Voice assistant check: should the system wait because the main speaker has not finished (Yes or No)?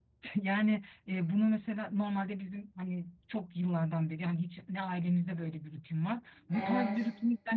Yes